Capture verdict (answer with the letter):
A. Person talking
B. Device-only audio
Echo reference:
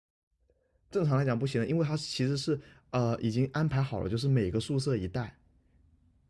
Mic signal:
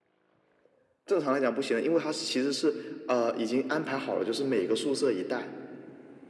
B